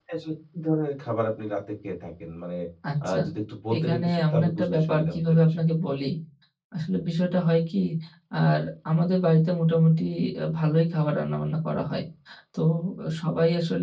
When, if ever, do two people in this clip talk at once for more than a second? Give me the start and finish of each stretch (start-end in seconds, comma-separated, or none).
3.7-5.6